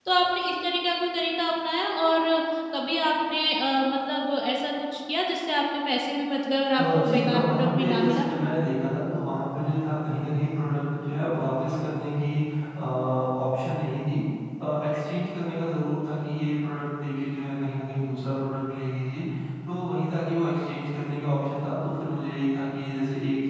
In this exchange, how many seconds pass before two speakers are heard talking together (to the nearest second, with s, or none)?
7 s